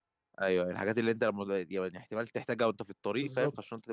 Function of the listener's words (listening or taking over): taking over